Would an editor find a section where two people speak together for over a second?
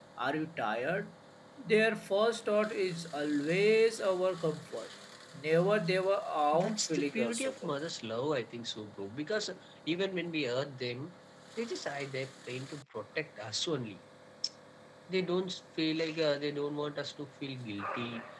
Yes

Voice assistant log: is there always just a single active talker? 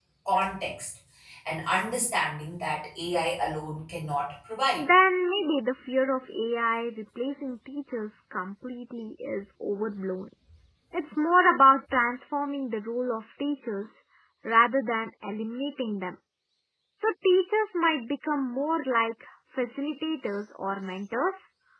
Yes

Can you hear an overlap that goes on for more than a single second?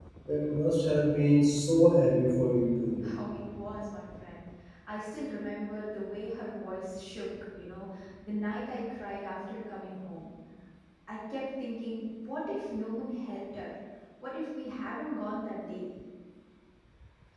No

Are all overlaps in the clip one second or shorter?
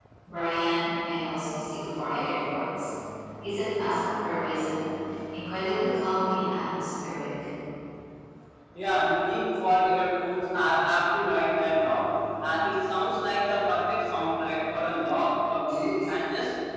Yes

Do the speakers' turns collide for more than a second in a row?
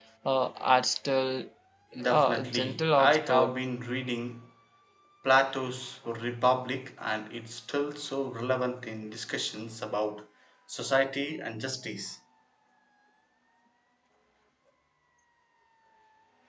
Yes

